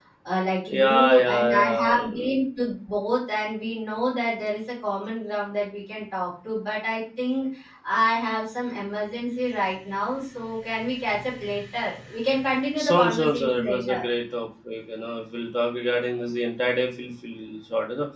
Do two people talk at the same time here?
Yes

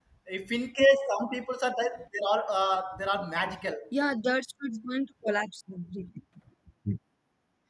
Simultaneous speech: No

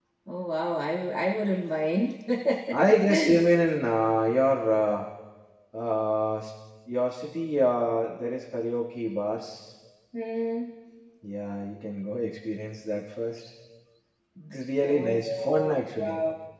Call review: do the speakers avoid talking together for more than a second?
No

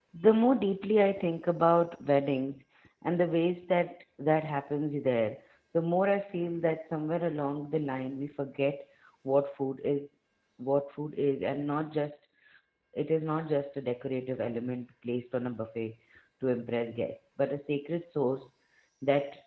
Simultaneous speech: No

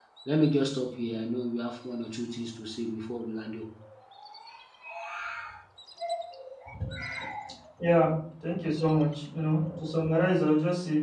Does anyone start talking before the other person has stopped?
No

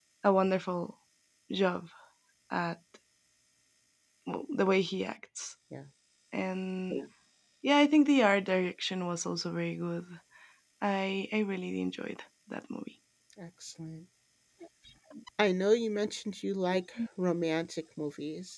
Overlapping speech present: No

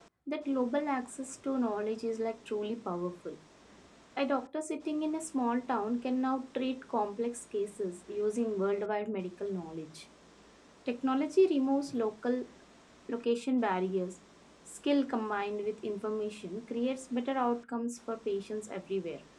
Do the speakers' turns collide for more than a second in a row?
No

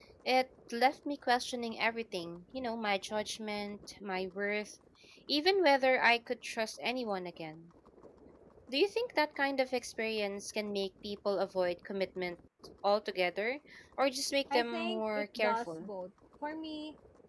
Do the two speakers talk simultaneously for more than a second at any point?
Yes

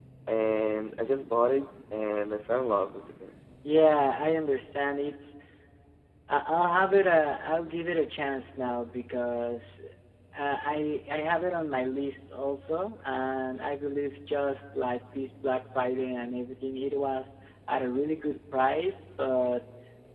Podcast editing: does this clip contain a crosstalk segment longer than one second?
No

